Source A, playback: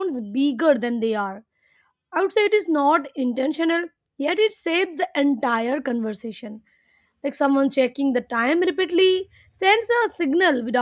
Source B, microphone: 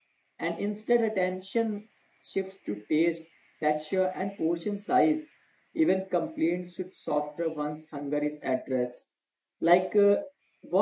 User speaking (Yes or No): Yes